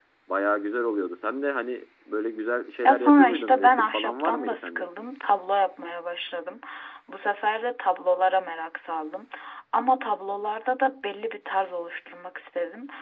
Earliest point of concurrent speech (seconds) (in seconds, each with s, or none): 2.8 s